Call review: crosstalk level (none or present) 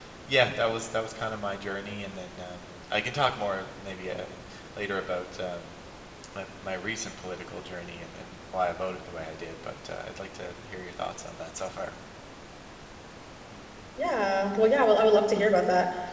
none